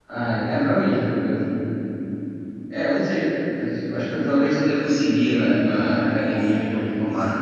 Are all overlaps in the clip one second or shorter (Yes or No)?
No